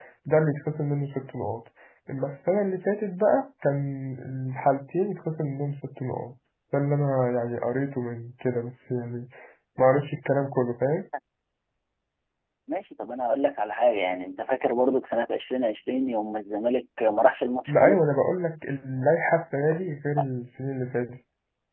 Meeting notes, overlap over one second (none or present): none